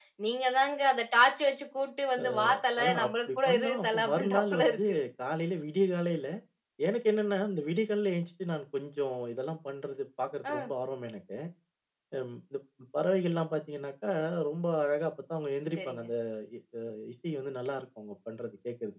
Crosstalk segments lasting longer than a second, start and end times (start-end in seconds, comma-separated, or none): 2.8-4.8